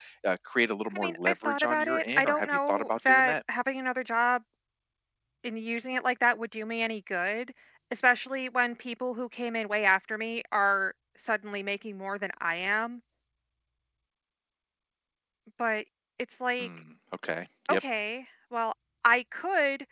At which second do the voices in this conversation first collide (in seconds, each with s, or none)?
0.9 s